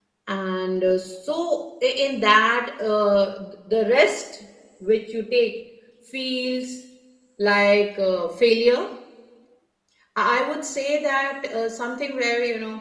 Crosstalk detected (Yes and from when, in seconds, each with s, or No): No